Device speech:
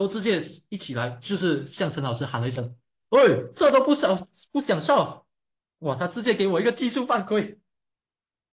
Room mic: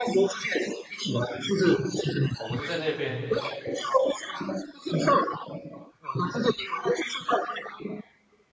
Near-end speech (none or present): present